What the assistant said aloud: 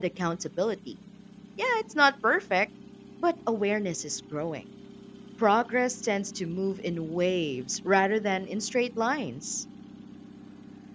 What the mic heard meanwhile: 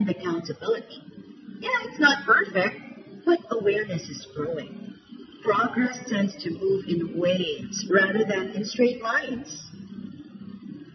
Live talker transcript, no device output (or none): none